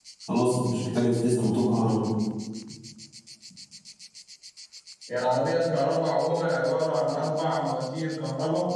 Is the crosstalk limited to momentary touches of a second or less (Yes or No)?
Yes